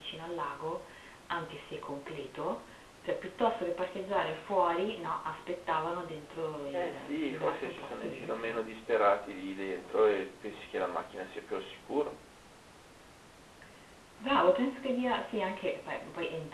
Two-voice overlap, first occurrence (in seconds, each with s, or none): 6.7 s